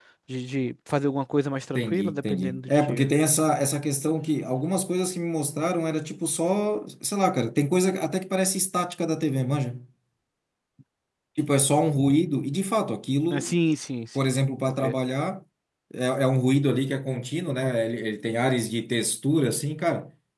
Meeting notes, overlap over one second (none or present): present